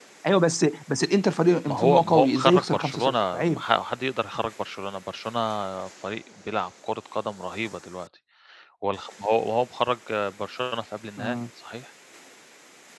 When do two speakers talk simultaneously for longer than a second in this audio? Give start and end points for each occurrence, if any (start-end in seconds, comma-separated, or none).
1.6-3.6